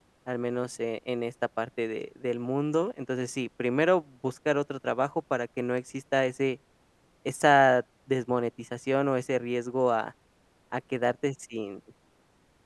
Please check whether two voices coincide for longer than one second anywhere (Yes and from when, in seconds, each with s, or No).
No